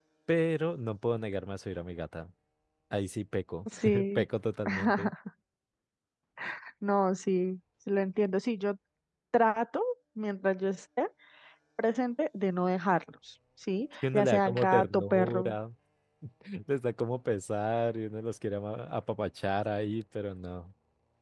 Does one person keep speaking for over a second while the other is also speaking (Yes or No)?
Yes